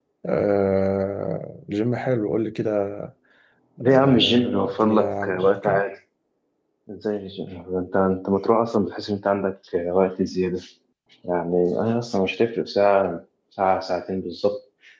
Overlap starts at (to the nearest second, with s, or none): 4 s